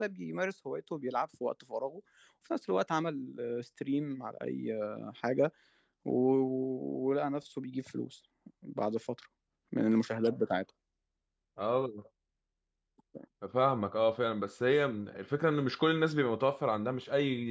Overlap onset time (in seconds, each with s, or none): none